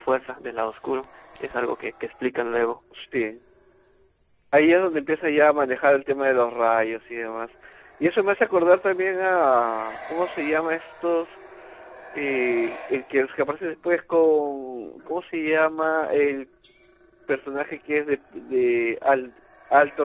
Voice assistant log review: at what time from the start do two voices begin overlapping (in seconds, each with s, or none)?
none